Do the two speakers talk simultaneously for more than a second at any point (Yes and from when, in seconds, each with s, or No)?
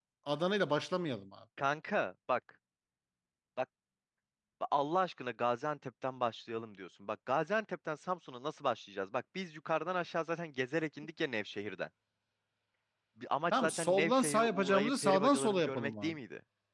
Yes, from 13.5 s